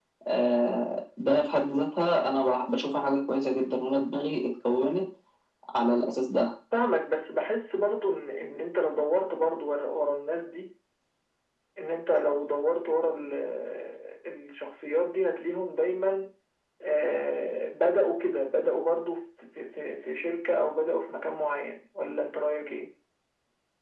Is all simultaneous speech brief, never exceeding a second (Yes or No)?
Yes